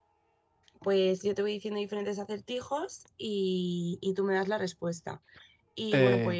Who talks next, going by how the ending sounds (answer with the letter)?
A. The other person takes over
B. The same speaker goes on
B